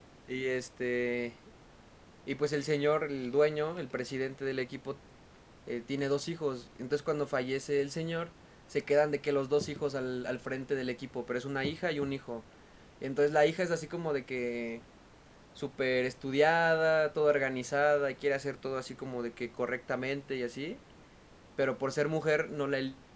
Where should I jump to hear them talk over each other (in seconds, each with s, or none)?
none